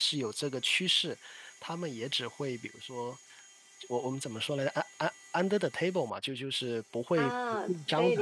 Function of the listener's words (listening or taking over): taking over